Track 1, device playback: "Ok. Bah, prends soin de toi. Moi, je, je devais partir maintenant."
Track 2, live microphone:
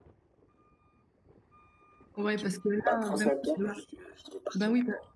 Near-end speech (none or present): present